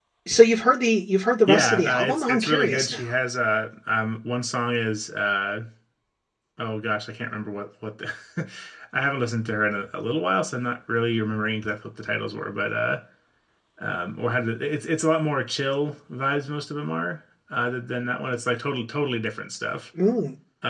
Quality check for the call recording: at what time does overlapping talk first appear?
1.5 s

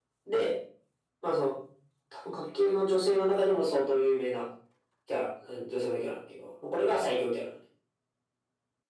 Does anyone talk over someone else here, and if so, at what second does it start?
none

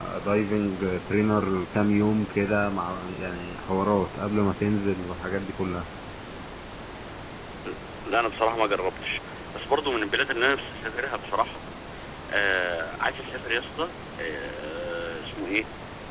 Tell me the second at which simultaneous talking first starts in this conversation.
none

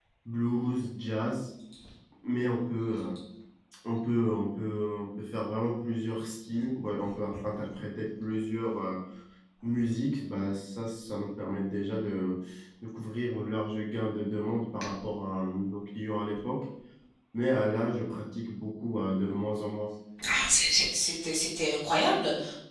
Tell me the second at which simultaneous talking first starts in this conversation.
none

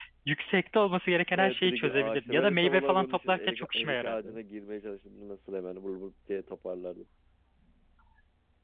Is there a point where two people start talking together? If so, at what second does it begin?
1.3 s

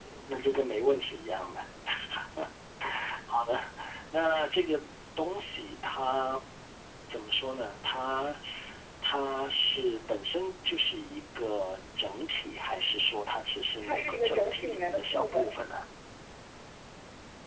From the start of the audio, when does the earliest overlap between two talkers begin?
13.8 s

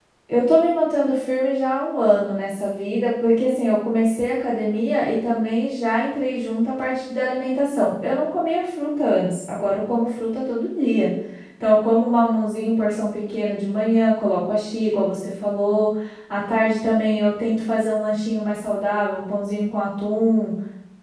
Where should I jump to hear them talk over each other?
none

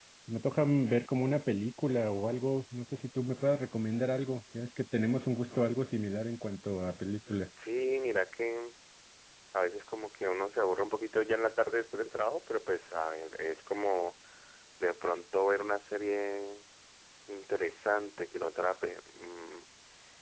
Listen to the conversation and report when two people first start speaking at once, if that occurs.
none

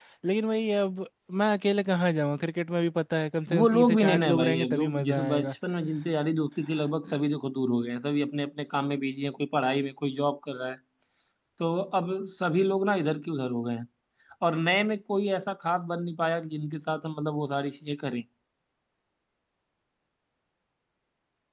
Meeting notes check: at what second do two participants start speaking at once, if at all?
3.5 s

